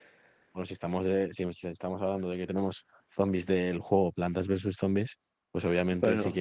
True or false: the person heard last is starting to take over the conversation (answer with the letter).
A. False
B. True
A